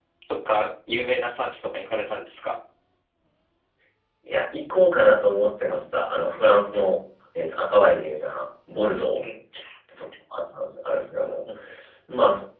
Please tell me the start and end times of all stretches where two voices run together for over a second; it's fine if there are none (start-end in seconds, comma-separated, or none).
none